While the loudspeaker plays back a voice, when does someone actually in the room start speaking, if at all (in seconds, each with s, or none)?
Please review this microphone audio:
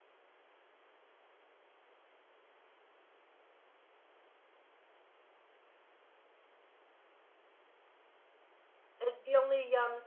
9.0 s